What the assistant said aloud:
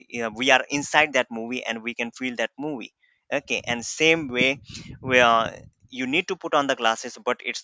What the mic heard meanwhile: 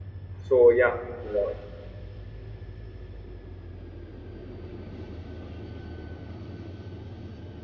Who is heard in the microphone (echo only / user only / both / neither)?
user only